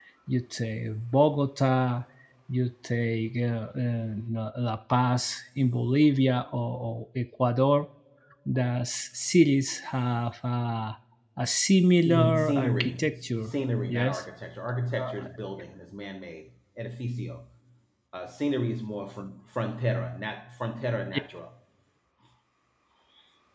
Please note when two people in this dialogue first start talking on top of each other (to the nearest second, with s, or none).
12 s